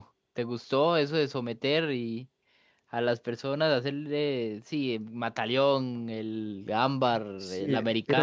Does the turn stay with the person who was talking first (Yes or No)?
No